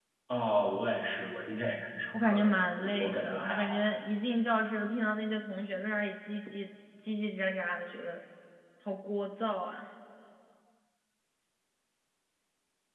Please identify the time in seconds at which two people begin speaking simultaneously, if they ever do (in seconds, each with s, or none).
2.1 s